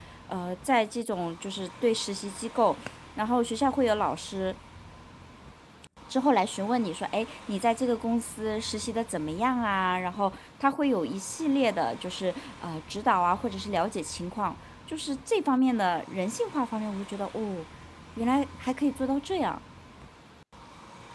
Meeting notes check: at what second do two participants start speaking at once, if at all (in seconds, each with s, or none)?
none